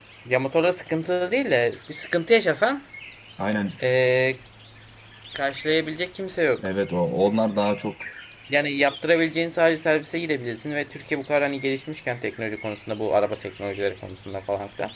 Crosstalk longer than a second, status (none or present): none